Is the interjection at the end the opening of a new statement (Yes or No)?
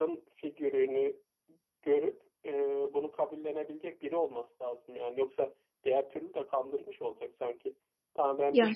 No